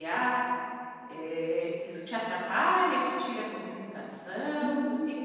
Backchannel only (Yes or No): No